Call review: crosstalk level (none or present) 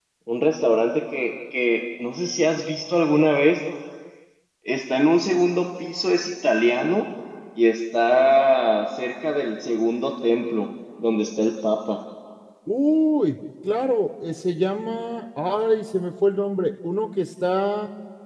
none